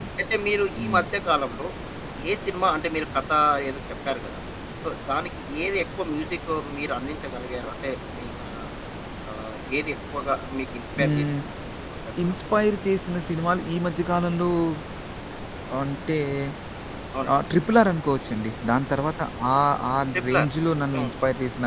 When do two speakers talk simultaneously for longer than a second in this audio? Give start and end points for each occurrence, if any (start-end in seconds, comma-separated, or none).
none